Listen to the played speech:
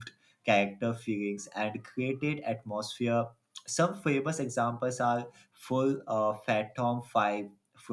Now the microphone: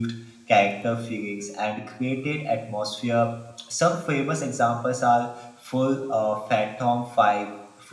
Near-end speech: none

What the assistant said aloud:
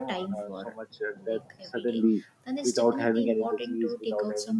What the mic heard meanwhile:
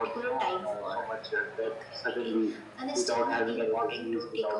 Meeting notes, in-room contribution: none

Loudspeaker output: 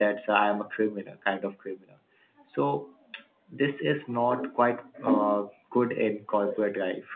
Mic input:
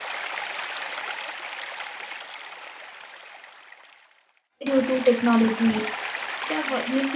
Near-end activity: present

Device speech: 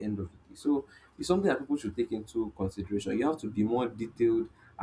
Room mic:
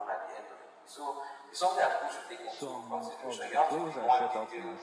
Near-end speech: present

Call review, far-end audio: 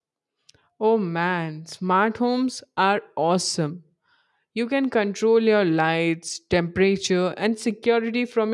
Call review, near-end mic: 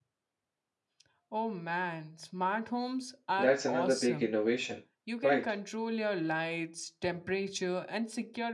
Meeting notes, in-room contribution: present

